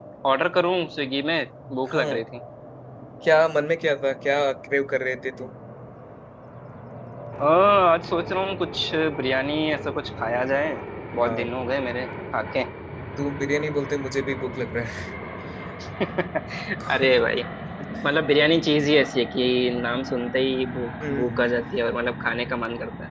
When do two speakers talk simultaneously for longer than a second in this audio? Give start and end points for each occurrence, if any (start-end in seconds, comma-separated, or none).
none